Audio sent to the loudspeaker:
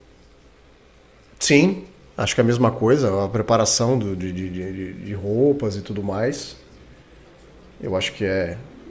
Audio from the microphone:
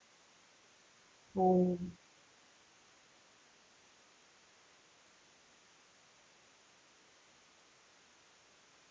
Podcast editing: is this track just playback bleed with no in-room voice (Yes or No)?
No